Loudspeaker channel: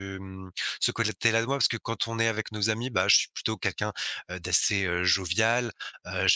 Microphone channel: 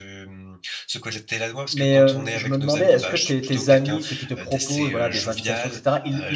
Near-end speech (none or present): present